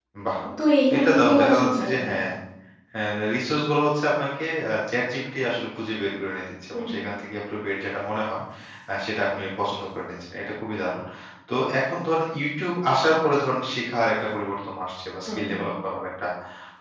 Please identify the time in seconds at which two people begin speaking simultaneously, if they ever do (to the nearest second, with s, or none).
1 s